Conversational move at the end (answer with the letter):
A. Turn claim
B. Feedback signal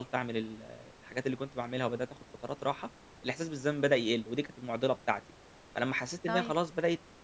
B